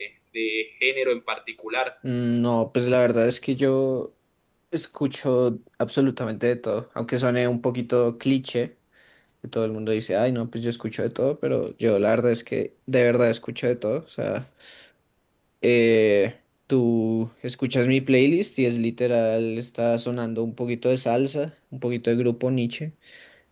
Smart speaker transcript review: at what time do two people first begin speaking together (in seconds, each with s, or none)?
none